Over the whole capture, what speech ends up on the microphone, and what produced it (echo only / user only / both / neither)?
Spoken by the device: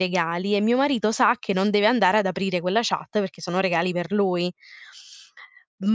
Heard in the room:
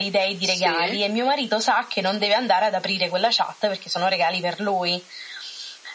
both